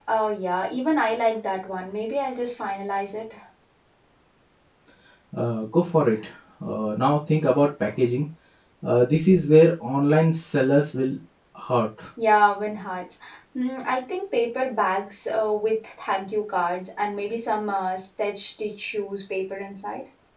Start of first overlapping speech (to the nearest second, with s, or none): none